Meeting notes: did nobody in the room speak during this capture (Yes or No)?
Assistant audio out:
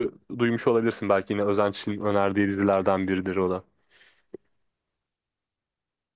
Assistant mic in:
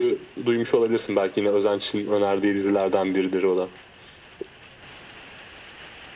Yes